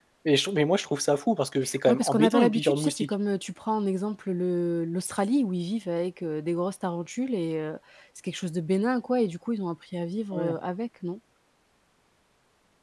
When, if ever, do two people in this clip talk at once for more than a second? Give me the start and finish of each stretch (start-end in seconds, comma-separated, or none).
1.9-3.1